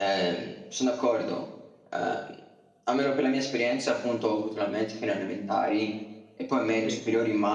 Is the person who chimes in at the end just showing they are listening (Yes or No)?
Yes